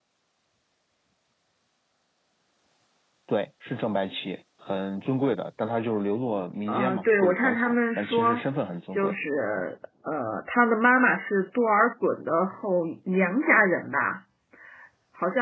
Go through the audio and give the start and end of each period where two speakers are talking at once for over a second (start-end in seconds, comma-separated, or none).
6.7-8.4